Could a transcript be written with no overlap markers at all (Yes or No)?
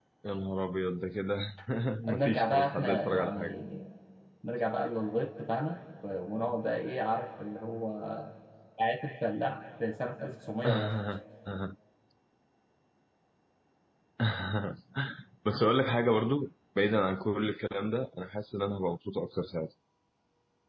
No